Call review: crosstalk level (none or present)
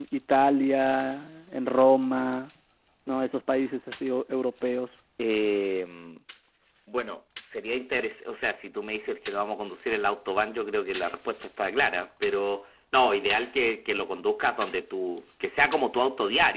none